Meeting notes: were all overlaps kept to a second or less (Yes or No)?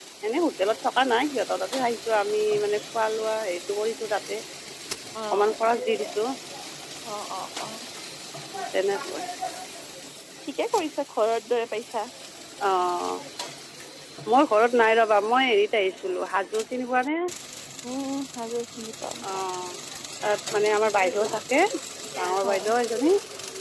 Yes